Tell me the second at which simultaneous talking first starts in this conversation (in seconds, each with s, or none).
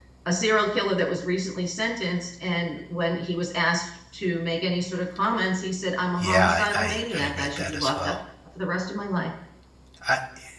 6.2 s